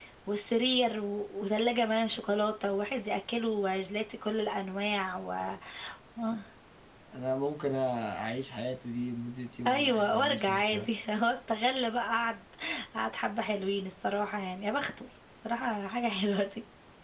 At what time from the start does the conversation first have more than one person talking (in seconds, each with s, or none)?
9.7 s